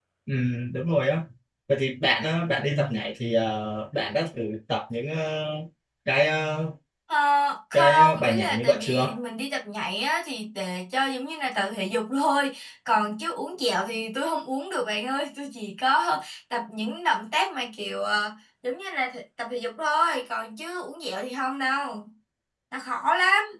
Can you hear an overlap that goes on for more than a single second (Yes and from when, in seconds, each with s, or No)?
Yes, from 7.7 s